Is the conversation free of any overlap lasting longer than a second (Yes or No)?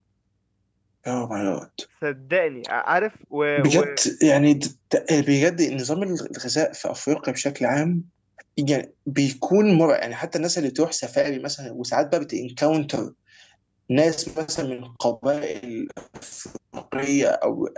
Yes